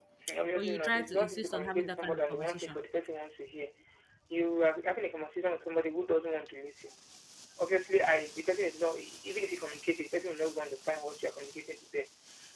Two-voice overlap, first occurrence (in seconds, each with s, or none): 0.6 s